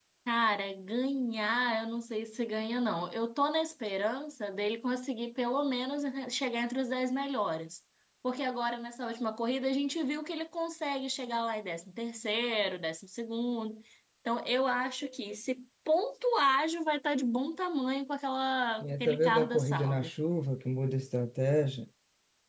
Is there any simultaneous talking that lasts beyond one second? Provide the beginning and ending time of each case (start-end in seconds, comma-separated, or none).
18.8-20.1